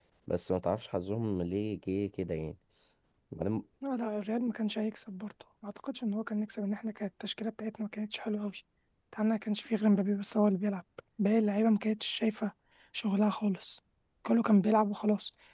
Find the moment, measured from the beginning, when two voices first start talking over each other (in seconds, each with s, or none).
none